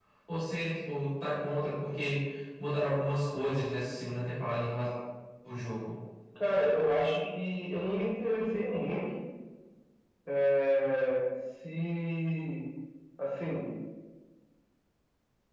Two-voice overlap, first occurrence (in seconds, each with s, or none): none